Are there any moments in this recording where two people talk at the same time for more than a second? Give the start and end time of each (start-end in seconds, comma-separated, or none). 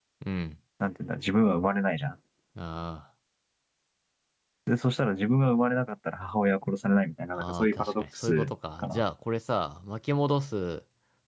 7.3-9.0